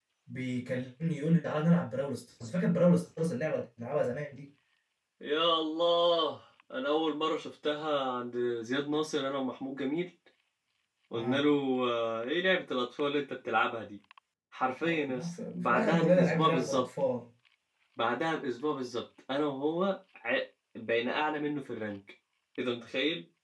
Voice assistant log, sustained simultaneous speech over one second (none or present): present